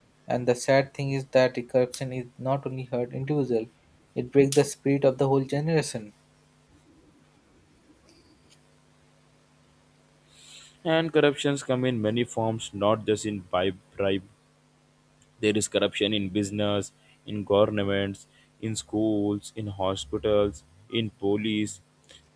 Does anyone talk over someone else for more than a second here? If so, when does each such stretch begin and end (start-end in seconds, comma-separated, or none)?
none